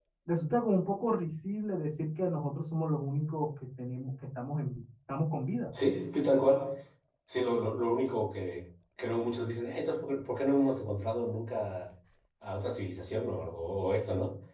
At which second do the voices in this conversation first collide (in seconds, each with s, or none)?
none